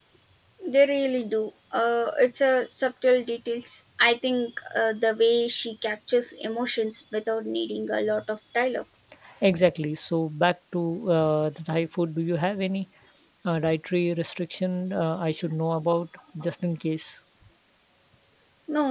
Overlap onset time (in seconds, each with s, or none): none